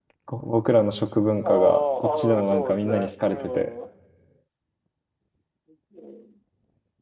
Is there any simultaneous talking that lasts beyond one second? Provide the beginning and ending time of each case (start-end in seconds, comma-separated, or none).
1.4-3.7